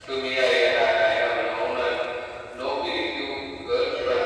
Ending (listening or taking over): listening